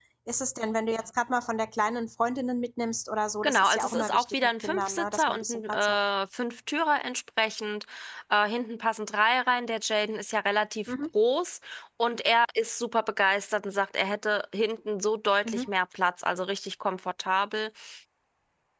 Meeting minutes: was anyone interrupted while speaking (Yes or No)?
Yes